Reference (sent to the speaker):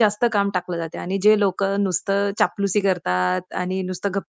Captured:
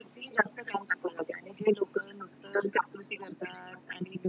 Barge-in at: none

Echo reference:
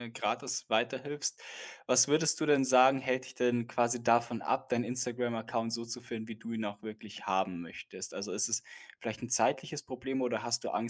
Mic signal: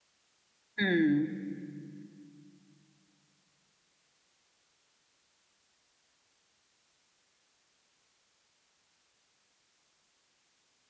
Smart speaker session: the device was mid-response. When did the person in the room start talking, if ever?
0.8 s

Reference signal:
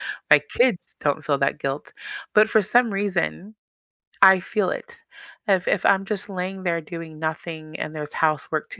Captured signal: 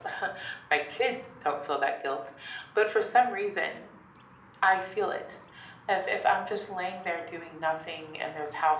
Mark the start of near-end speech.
none

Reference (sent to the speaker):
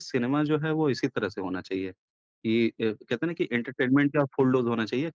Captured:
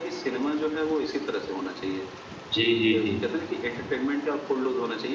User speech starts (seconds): 2.5 s

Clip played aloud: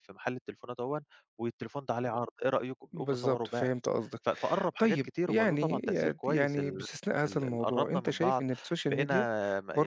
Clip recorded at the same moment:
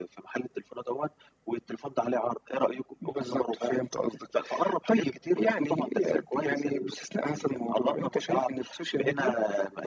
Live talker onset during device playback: none

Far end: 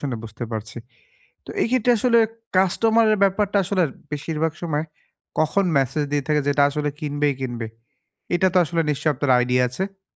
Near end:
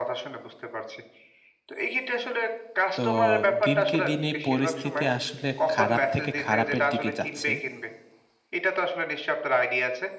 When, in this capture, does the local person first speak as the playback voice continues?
3.0 s

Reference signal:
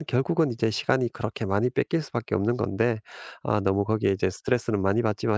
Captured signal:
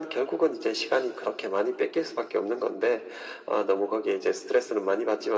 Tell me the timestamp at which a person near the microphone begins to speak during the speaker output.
none

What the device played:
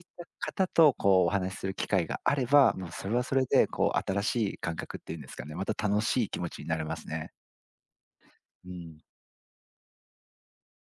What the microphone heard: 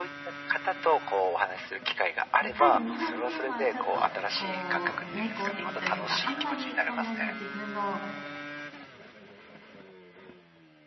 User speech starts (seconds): 2.4 s

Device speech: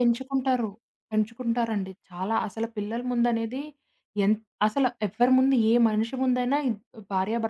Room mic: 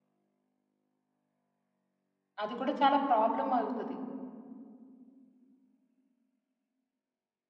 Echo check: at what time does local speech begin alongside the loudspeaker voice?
2.4 s

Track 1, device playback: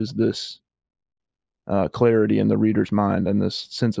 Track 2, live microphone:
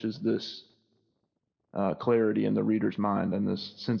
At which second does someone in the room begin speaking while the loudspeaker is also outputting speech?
none

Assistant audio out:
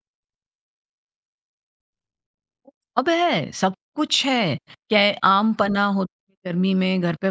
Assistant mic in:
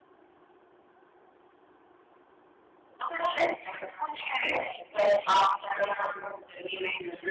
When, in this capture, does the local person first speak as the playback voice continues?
none

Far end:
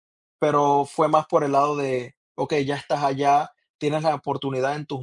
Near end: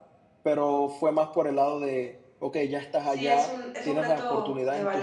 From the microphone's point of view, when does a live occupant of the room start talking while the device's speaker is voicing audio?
3.0 s

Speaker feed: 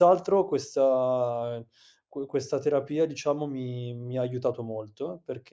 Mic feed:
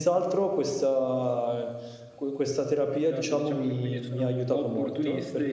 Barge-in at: 3.1 s

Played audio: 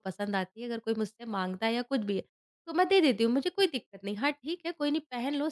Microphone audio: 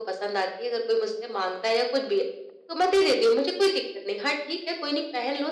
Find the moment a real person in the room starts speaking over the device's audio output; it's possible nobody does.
none

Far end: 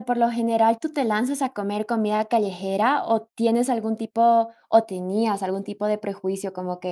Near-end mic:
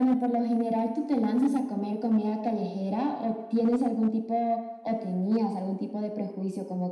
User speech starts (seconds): 1.2 s

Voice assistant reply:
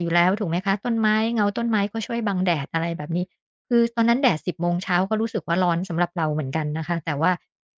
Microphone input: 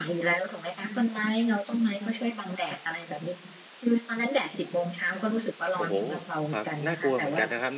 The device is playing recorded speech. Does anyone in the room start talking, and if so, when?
5.8 s

